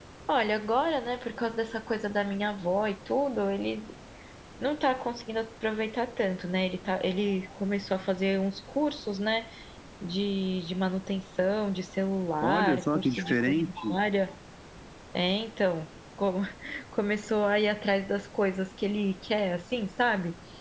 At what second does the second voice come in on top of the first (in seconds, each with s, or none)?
12.4 s